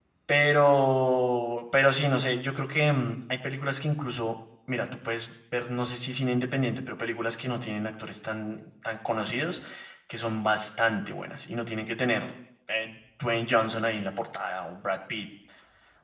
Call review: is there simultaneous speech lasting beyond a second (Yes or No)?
No